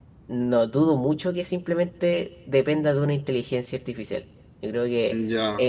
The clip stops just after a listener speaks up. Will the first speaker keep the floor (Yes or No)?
Yes